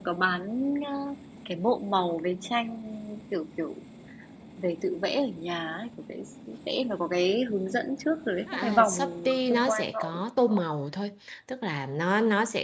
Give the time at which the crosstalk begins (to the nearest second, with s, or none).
8 s